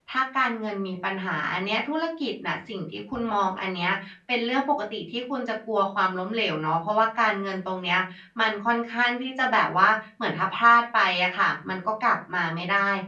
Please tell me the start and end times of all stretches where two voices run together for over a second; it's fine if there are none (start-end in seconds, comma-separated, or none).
none